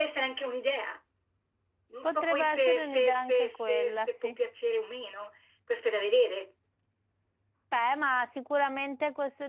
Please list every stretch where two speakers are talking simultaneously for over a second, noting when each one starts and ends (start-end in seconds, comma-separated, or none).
2.0-4.4